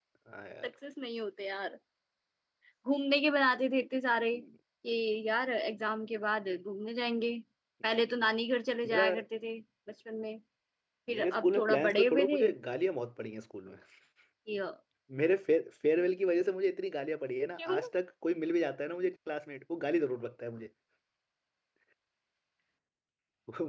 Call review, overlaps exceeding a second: present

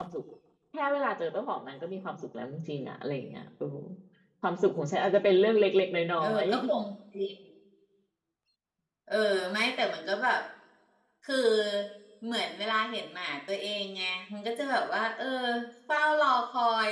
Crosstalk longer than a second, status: none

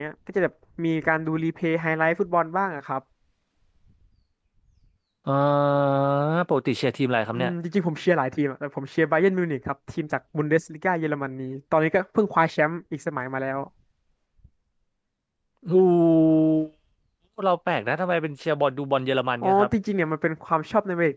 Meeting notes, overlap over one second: none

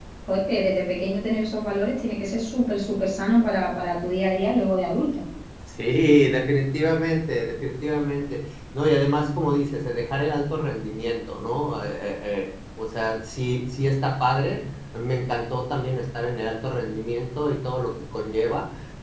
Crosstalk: none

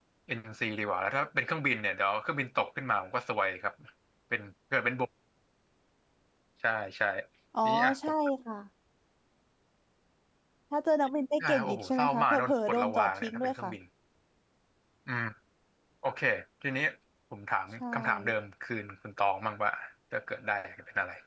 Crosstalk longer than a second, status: present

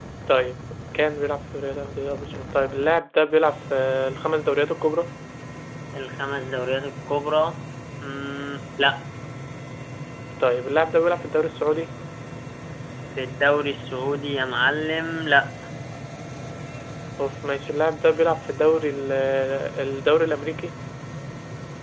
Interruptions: none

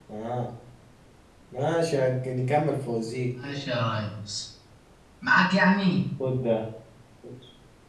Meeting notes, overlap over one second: none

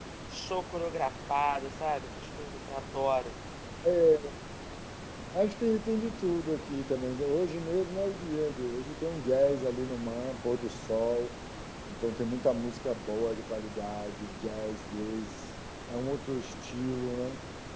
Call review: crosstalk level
none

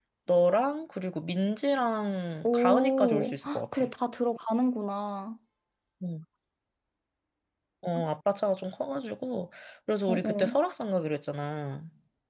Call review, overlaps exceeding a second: present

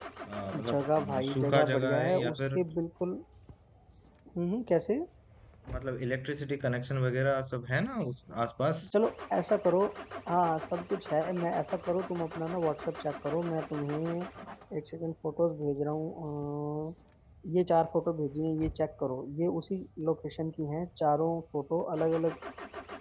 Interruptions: present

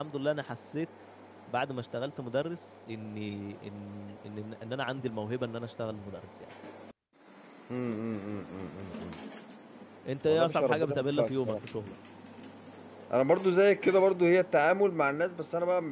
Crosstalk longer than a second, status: present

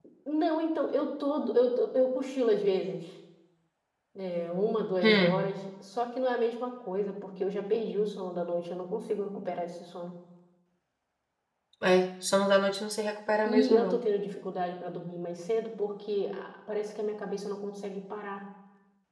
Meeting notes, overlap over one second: none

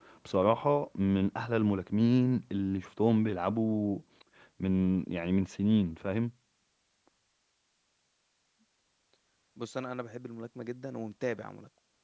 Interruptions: none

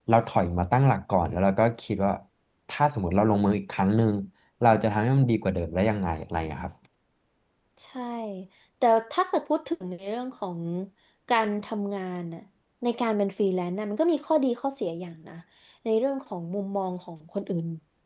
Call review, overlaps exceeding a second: none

